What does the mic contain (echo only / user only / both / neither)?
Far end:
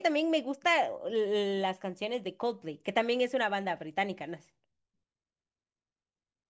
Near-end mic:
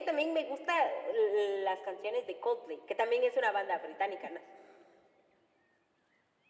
echo only